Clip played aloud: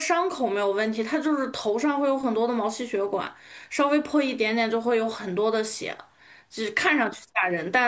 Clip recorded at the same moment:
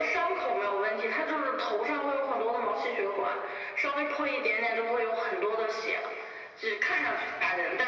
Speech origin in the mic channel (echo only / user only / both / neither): echo only